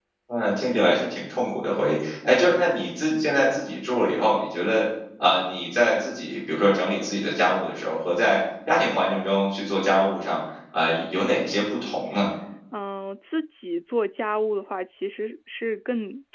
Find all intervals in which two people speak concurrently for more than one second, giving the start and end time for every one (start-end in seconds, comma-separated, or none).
none